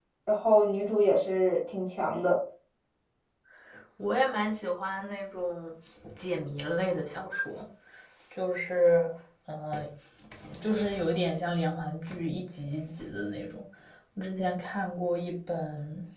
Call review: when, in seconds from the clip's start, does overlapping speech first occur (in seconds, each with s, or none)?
none